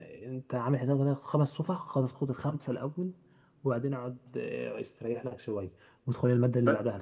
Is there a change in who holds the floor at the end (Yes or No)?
No